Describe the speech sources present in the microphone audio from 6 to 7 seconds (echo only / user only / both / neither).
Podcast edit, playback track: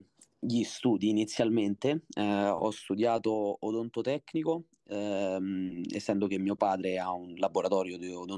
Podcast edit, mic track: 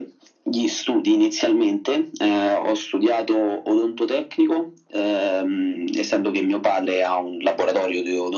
echo only